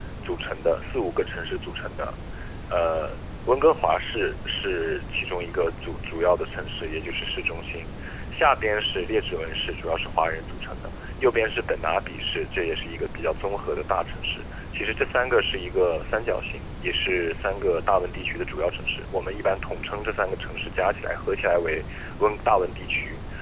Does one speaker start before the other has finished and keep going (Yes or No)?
No